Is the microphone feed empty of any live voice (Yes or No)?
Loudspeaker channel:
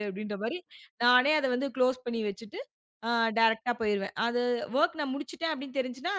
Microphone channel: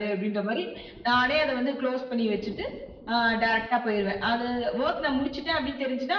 Yes